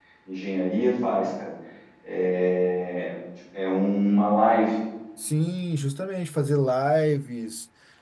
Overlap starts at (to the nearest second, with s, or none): none